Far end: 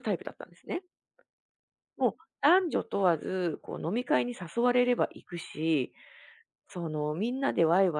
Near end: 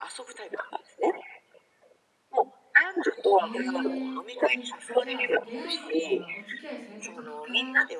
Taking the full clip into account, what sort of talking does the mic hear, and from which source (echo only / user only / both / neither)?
both